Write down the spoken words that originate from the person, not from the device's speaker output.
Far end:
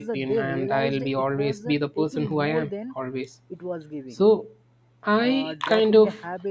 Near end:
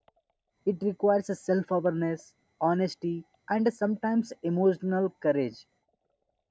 it requires a self-awareness honesty and sometimes emotional courage

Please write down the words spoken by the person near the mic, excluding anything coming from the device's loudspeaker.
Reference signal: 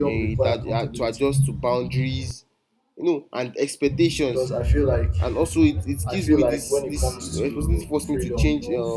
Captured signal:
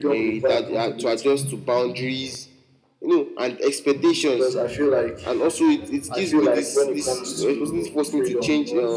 none

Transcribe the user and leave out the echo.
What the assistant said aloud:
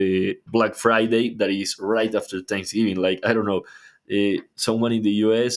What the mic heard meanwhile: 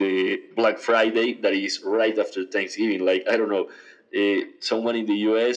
none

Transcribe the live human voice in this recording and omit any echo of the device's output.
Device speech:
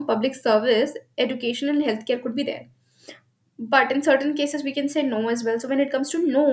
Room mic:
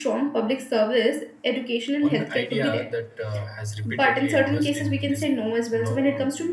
One idea that uh, has repeatedly emerged in this you know,

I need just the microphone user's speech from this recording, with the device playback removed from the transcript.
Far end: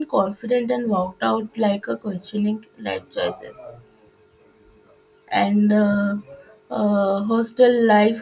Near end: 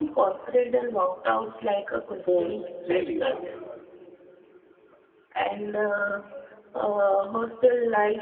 phone's playlist.

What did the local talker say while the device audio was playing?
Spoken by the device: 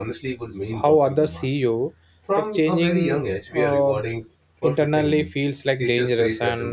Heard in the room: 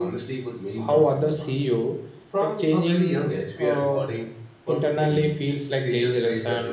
none

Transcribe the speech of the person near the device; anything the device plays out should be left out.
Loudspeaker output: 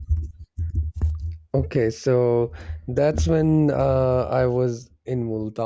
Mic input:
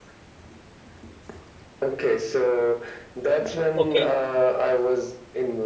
Okay.

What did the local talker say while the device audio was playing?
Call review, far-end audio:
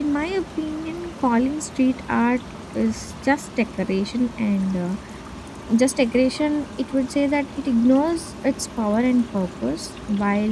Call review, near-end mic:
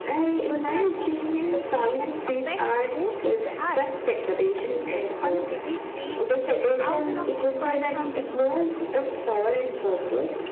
Also, I think location affects who sees the art. A piece on a busy street reaches thousands of people from dif-

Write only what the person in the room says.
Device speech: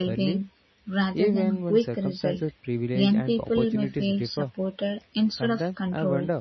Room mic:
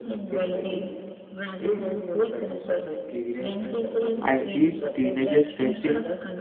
I seen teenagers stressing

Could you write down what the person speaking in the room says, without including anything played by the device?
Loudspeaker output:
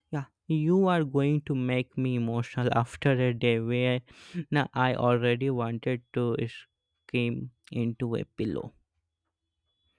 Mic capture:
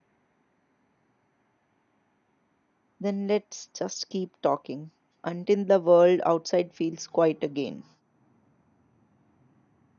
Then let's just keep talking until the world outside feels quiet again.

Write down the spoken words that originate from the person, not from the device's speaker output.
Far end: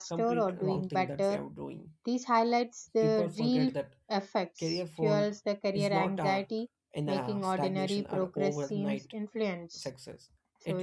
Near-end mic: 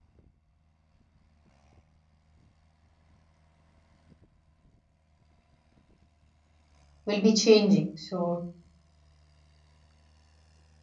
will be changing. So,

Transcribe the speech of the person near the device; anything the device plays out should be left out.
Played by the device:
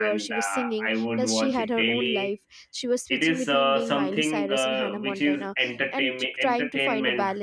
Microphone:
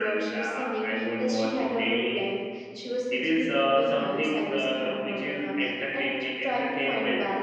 none

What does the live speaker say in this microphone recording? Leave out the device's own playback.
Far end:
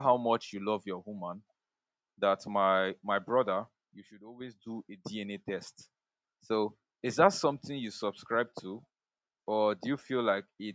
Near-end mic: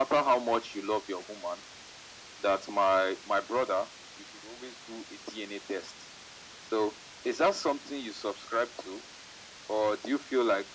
none

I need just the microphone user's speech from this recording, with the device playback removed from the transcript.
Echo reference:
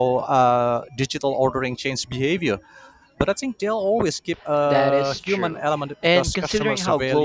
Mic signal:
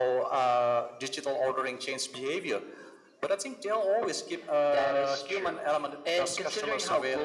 none

